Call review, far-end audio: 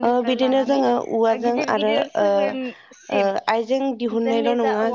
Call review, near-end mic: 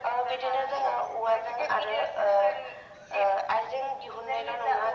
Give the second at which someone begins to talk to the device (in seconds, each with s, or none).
none